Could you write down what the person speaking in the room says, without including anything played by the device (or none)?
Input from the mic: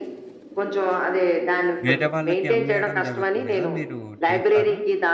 వేరే వాళ్ళకి అమ్మేయడం జరుగుతుంది గదా! మీరు చేసారా?